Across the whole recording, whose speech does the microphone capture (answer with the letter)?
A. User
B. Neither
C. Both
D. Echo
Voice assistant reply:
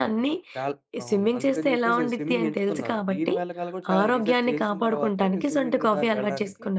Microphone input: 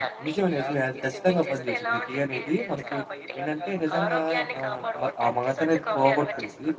C